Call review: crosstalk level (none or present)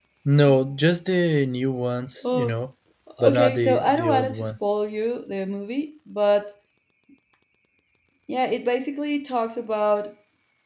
present